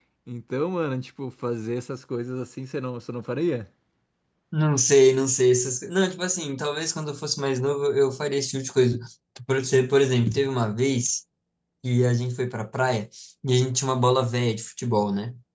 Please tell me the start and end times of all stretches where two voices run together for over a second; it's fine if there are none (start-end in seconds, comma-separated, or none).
none